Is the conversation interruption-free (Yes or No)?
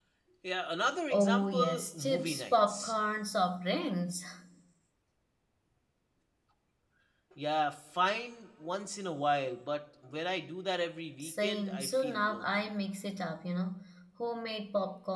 No